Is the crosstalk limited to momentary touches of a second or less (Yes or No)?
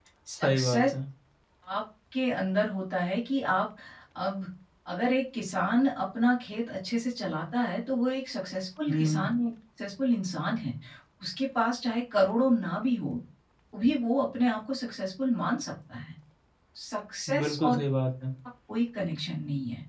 Yes